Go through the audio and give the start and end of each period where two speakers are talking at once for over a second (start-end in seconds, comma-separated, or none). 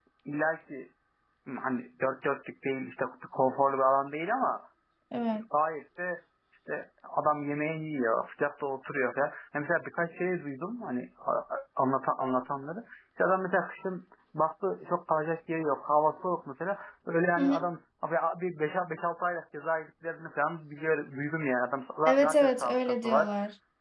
22.1-23.3